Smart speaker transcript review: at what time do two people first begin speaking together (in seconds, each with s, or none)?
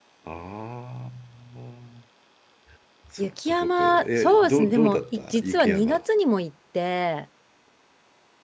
3.2 s